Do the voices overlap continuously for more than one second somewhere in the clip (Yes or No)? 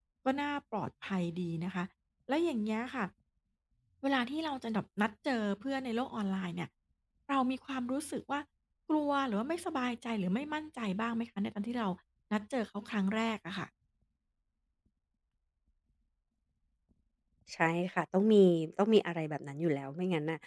No